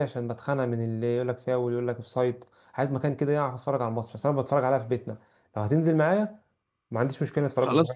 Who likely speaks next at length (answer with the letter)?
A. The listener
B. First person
A